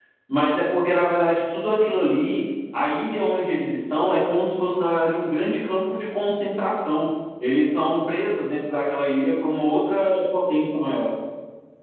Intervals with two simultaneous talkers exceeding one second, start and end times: none

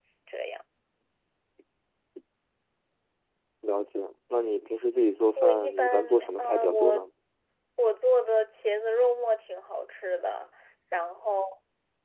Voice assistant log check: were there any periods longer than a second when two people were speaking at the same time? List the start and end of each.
5.4-7.0

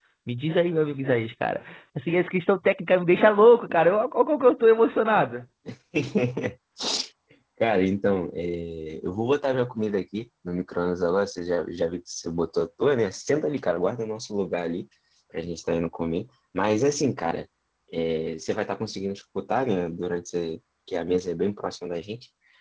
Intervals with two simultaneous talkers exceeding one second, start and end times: none

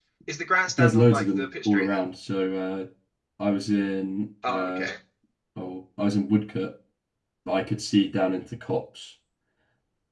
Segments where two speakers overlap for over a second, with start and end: 0.8-2.0

